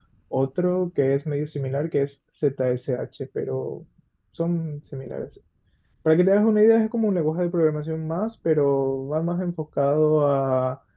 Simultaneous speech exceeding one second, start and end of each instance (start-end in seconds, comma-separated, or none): none